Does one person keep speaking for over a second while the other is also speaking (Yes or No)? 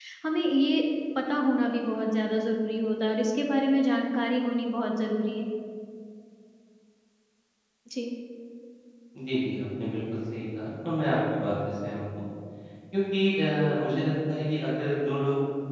No